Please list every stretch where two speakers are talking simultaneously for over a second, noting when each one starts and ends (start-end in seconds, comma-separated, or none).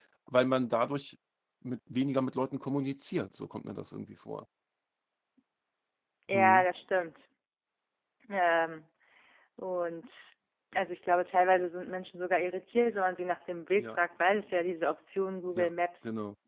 none